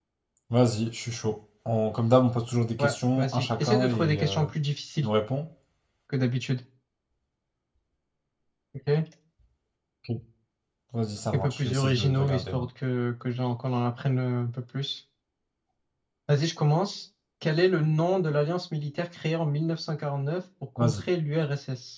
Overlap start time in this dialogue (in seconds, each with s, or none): 2.8 s